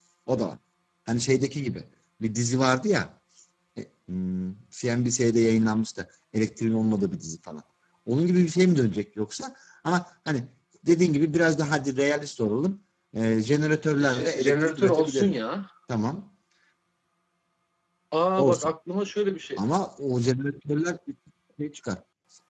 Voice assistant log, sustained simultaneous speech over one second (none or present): present